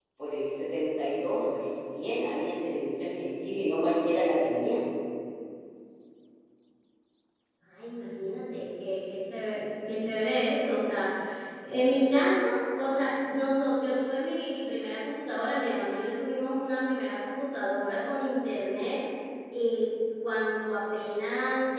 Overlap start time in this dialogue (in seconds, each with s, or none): none